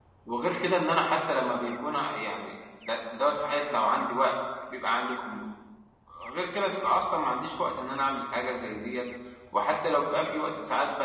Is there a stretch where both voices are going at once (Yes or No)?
No